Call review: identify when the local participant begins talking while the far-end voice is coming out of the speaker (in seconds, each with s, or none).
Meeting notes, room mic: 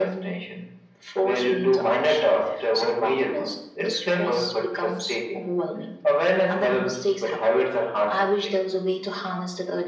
none